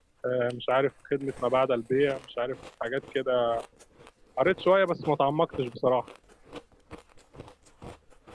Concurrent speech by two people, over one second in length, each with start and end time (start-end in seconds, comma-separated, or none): none